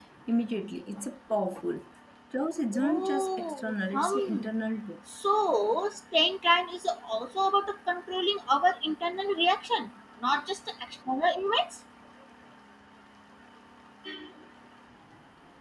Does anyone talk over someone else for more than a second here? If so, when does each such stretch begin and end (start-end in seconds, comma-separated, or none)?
2.7-4.4